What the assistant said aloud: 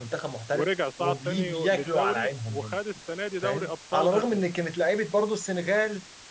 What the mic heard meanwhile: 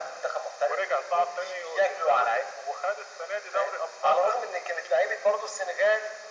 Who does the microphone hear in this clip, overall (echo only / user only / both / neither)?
echo only